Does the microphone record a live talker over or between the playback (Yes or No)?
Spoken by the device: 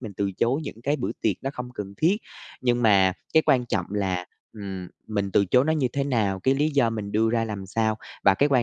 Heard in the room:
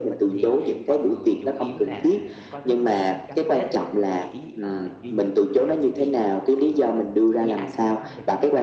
Yes